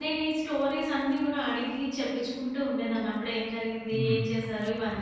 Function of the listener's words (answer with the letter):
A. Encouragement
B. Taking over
A